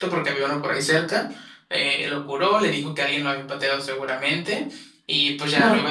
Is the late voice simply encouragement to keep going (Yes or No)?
Yes